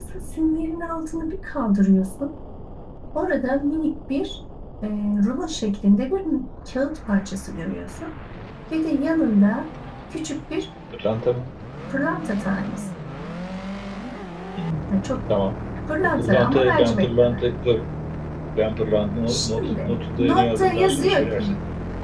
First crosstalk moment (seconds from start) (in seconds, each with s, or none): 16.0 s